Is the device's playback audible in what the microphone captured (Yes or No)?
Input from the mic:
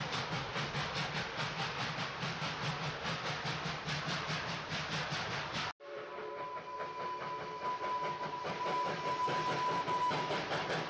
No